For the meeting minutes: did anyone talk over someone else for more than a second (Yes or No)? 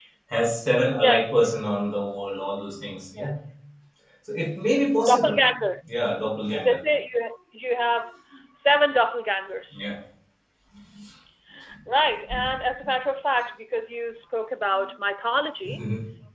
No